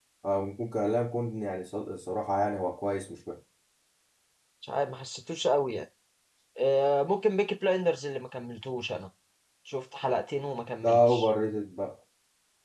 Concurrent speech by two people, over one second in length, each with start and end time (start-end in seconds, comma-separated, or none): none